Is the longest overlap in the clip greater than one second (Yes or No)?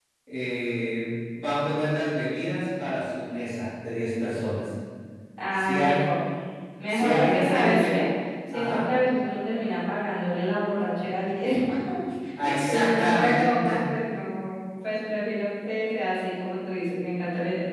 Yes